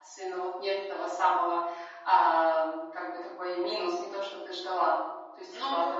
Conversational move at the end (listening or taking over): listening